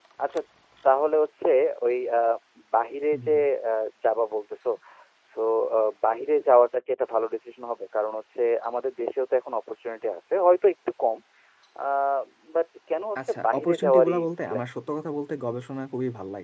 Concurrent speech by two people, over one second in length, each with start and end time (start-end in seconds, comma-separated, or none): 13.2-14.7